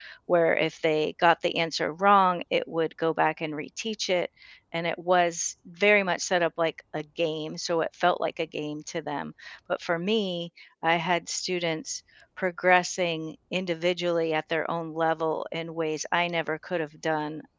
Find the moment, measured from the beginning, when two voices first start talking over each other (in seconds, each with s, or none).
none